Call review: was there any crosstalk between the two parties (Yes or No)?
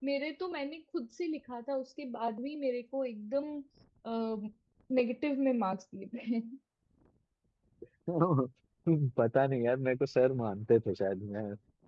No